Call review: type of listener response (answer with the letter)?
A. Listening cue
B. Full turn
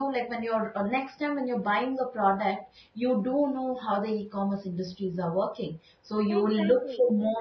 A